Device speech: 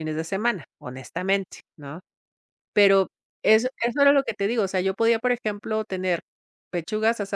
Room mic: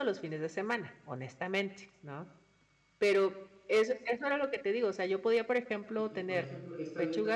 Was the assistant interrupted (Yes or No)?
Yes